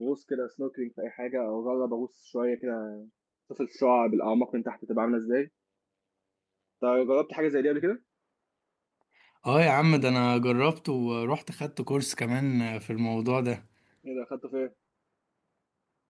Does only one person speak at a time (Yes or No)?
Yes